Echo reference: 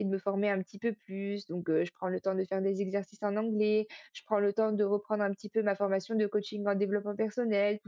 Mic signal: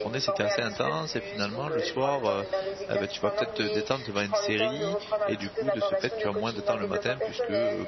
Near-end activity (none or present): present